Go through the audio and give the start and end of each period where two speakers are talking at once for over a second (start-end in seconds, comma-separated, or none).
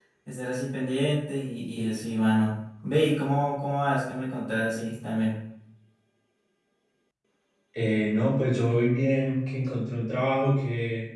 none